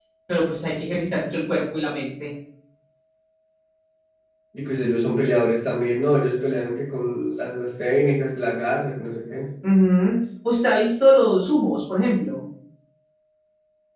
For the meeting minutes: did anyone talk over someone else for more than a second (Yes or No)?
No